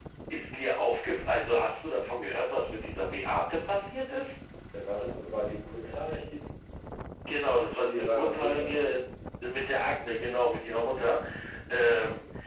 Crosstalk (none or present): present